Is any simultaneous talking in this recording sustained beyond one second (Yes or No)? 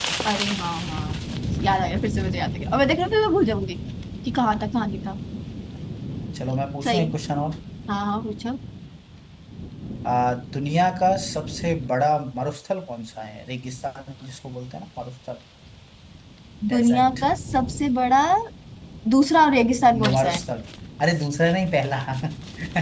No